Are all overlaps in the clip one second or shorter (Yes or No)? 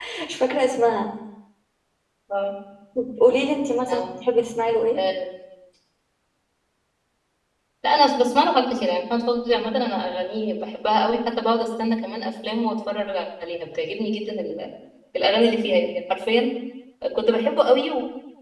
Yes